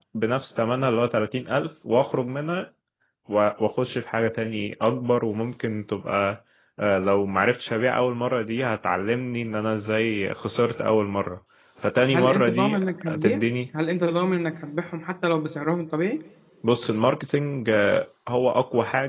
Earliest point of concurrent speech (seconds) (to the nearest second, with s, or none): 12 s